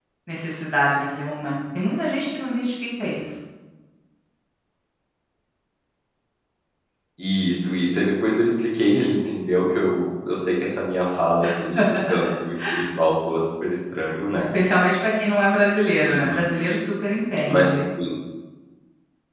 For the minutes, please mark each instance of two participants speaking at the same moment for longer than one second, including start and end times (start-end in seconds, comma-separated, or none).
none